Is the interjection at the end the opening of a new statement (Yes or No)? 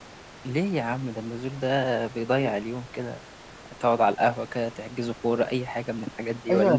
Yes